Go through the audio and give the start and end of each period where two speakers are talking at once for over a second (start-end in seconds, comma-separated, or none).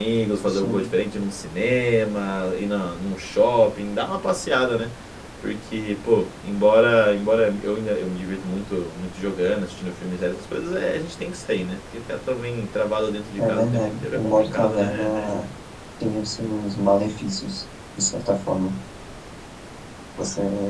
13.4-15.4